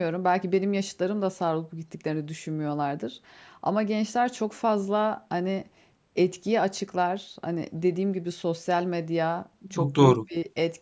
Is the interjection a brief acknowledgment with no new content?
Yes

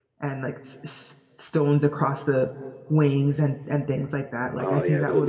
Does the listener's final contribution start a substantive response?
Yes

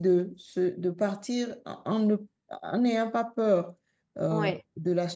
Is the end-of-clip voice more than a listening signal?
No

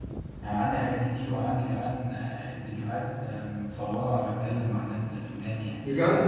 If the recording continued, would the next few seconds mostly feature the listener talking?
Yes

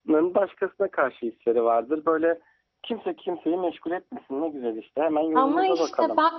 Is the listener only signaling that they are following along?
No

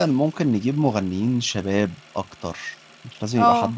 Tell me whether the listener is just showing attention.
Yes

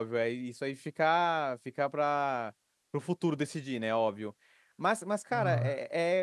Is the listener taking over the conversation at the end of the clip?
No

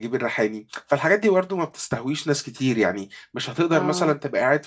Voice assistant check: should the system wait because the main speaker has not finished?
Yes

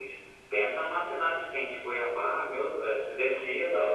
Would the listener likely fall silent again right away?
No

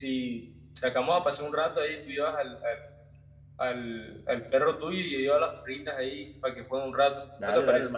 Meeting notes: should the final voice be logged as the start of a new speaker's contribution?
Yes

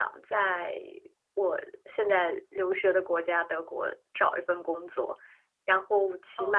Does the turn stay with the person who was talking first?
Yes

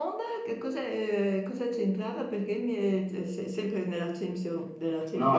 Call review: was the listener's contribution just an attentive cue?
No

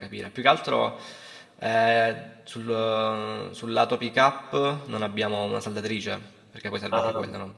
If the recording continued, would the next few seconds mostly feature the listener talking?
Yes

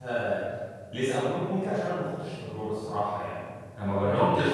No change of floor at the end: Yes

